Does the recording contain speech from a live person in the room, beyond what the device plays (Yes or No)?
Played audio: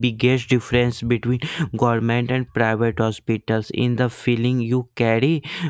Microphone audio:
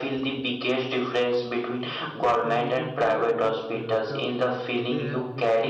Yes